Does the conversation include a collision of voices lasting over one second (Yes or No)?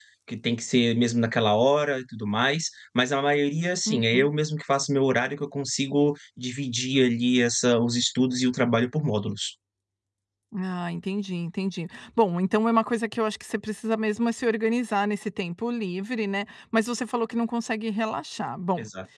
No